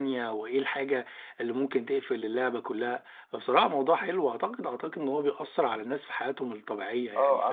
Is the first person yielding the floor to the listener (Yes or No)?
Yes